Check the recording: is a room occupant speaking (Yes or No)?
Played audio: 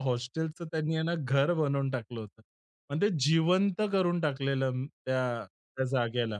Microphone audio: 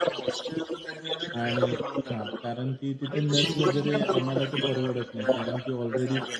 Yes